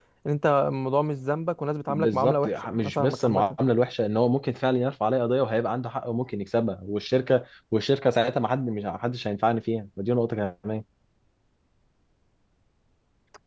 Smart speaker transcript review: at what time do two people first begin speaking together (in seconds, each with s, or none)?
1.9 s